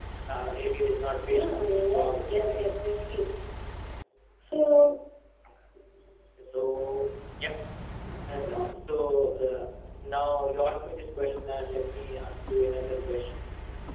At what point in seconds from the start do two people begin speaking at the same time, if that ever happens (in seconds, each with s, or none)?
1.3 s